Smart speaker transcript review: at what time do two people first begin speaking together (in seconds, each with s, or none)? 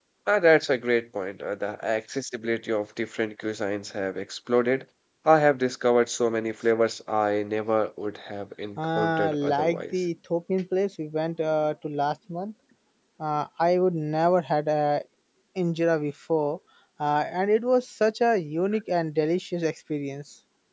8.8 s